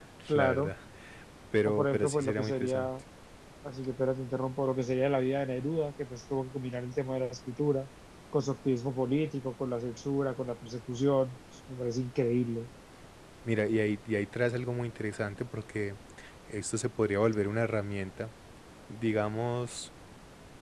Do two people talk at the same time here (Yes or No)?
Yes